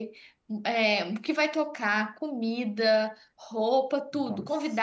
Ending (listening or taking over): listening